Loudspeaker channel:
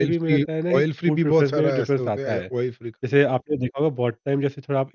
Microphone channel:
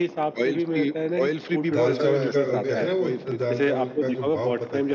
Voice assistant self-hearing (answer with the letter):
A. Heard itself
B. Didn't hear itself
A